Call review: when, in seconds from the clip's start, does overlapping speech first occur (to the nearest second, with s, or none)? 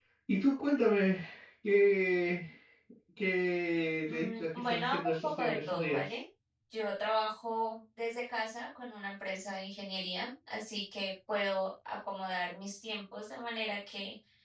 4 s